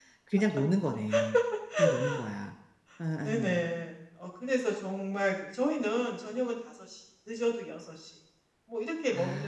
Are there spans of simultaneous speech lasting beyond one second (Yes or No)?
No